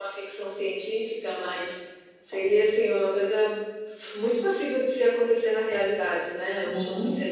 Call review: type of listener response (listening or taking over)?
listening